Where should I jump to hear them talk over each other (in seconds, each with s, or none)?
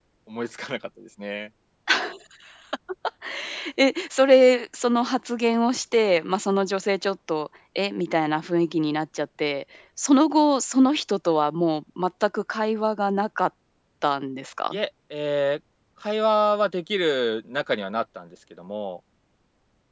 none